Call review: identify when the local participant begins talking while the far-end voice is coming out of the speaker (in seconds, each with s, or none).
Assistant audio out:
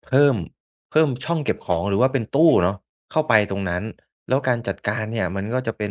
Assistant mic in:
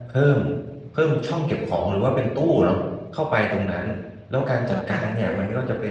4.7 s